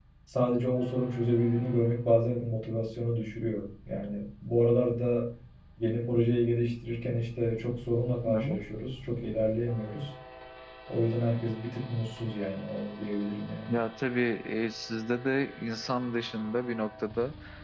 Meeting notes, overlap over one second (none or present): none